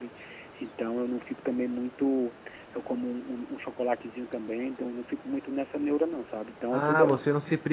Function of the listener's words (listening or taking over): taking over